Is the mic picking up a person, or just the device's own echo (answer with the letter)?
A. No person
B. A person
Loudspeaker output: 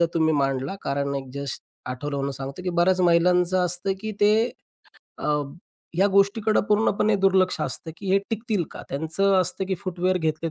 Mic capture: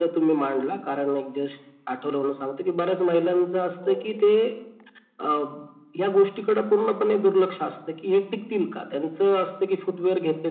B